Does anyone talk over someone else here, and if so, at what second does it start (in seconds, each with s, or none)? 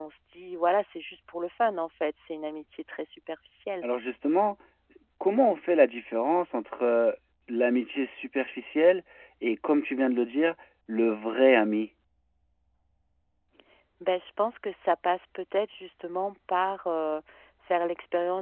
none